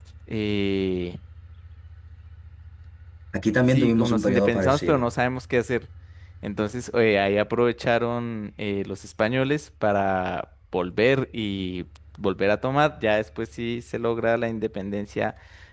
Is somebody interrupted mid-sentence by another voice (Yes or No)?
Yes